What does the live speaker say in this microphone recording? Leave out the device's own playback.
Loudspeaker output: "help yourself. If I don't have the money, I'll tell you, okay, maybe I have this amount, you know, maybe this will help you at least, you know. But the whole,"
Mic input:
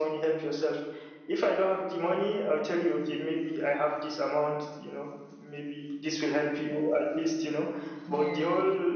Yeah.

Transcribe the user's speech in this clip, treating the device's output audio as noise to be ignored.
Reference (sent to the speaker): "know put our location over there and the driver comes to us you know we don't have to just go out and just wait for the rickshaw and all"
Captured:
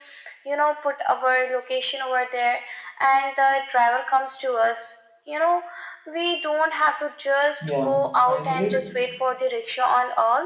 yeah i believe

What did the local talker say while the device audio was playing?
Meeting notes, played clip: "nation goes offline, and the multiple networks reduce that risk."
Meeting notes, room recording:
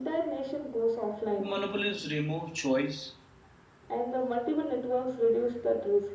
Monopolies remove choice

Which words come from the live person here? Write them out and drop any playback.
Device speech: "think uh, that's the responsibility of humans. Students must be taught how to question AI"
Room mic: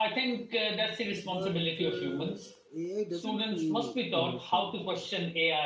But uh, AI doesn't feel emotions.

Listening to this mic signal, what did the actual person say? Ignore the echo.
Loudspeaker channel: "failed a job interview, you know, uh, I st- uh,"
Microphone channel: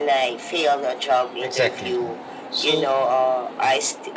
Exactly. So

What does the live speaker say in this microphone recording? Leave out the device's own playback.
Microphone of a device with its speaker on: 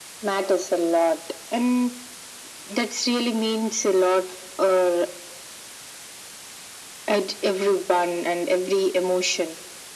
none

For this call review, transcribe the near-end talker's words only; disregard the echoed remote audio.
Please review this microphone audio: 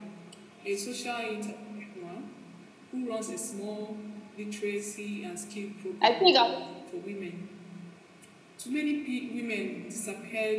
I think I just

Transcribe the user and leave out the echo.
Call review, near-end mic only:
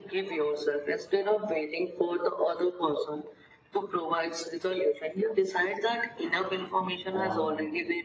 own

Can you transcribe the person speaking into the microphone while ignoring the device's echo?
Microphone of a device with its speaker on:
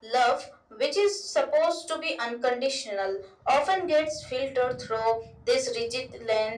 none

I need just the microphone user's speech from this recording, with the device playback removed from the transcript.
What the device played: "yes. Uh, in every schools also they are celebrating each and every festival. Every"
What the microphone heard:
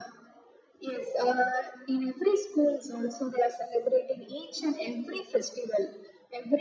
none

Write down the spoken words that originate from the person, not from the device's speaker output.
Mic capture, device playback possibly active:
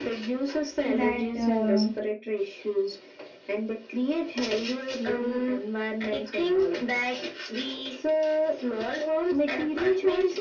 that, uh,

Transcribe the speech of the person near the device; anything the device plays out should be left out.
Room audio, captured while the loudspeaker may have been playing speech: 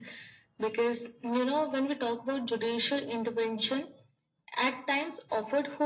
none

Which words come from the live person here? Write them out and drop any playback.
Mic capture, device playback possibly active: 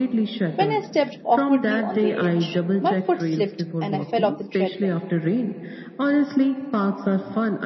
when I stepped awkwardly on the edge. My foot slipped and I fell off the treadmill,

